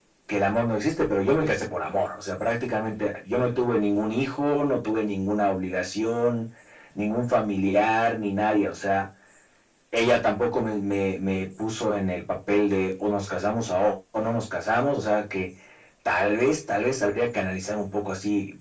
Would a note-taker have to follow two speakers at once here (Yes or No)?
No